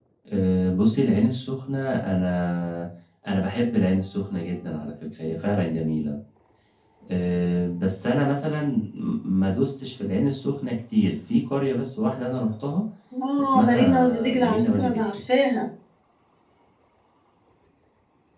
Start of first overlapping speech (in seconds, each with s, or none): 13.4 s